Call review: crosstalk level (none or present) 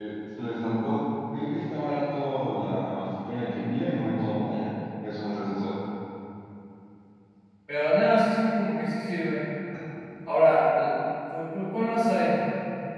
none